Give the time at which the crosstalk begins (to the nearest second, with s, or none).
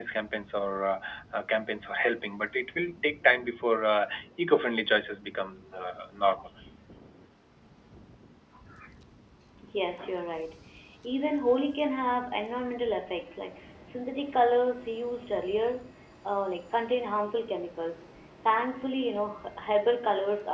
none